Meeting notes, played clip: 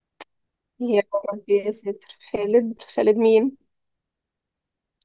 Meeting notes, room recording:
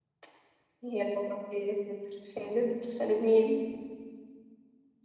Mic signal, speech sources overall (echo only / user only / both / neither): echo only